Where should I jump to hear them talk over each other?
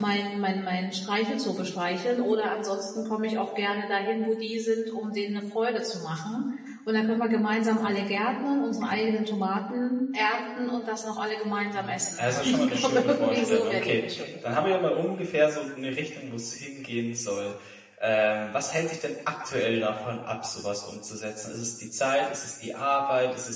11.7 s

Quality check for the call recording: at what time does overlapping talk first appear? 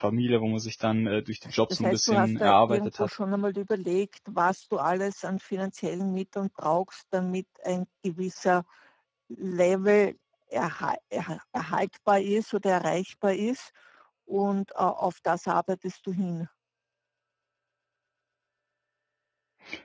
1.7 s

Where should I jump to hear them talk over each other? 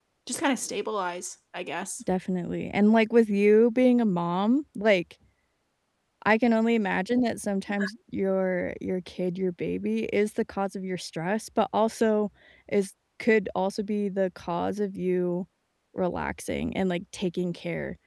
none

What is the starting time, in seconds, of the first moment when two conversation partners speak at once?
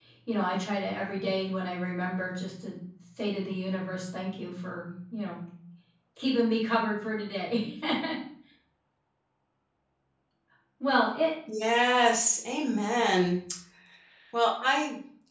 none

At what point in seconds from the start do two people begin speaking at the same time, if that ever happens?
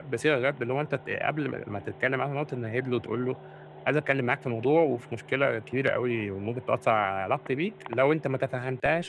none

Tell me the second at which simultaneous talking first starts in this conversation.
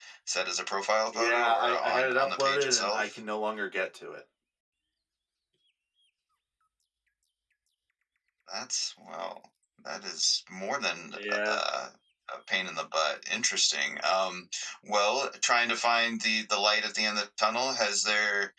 1.1 s

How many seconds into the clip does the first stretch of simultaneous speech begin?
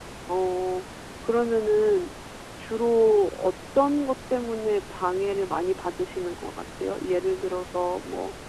none

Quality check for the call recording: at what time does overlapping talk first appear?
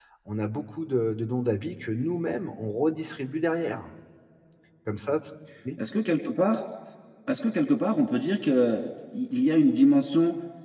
none

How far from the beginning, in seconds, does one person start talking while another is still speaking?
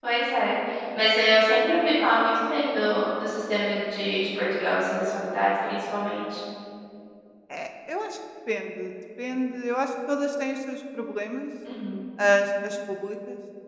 none

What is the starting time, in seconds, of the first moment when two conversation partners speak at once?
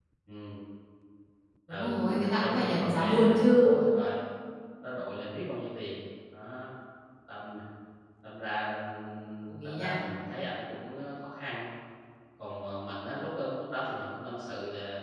1.7 s

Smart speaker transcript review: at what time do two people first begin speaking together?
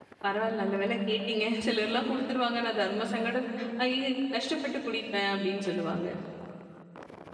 none

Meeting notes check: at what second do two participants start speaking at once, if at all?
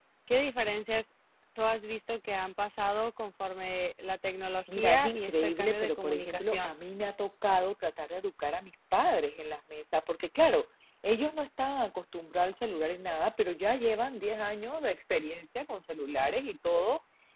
4.7 s

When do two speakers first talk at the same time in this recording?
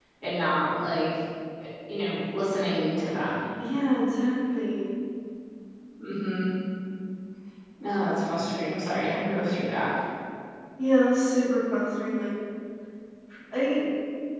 none

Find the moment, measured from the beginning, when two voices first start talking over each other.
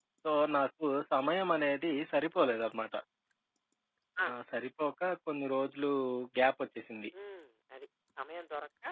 none

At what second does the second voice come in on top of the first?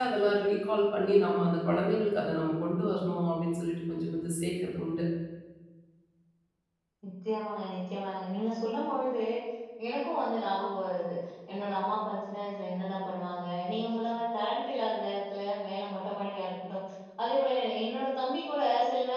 none

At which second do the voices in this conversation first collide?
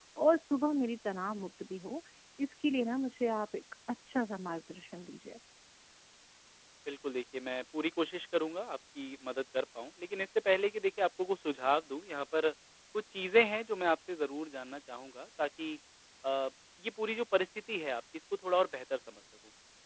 none

